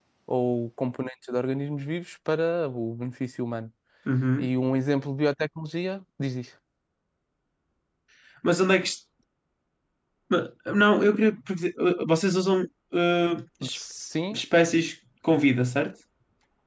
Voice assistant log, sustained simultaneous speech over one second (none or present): none